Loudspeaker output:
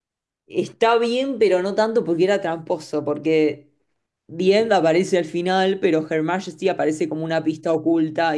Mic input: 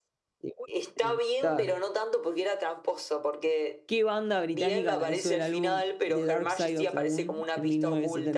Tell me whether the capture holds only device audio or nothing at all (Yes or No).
No